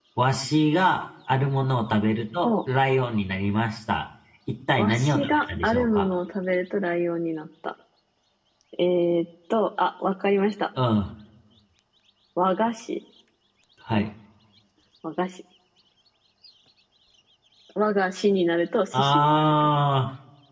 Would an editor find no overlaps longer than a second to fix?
No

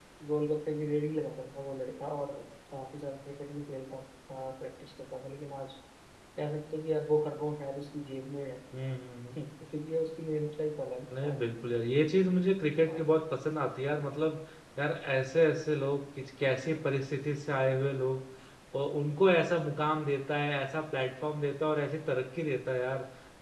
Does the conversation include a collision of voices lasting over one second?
No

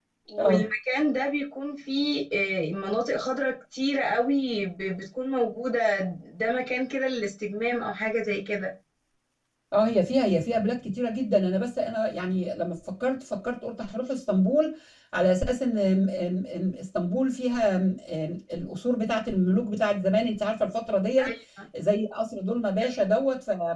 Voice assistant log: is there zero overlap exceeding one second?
Yes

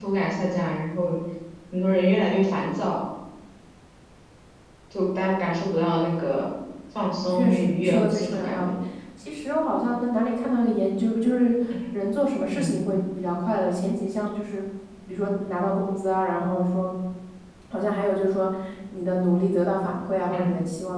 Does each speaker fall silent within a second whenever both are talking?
No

